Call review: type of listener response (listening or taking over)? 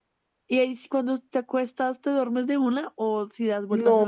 taking over